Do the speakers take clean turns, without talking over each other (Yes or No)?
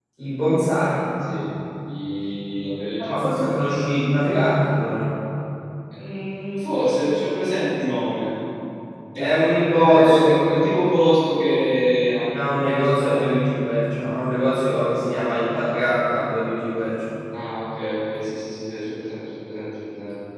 No